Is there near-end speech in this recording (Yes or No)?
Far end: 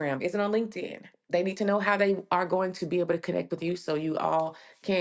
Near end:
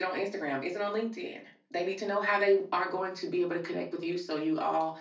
No